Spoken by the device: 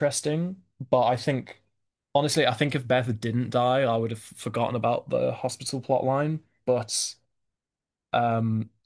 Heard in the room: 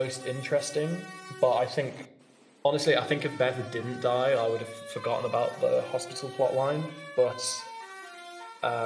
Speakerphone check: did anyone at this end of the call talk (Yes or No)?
No